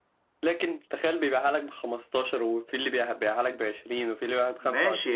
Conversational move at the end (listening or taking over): taking over